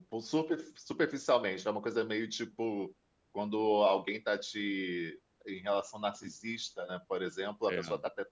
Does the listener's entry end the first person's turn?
No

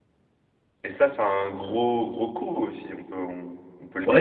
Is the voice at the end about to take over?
Yes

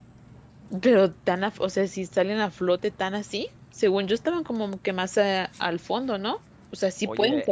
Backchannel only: No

